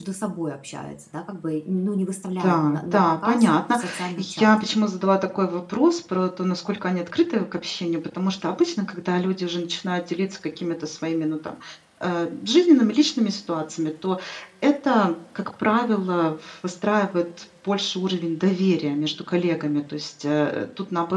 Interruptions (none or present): present